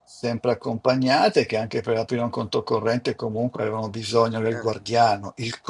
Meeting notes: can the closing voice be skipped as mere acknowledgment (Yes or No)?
Yes